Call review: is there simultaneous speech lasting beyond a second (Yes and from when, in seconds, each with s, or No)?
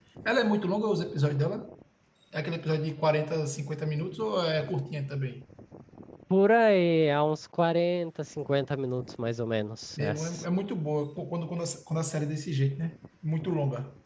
No